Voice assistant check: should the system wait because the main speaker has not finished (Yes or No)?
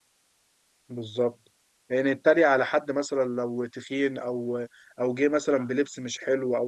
Yes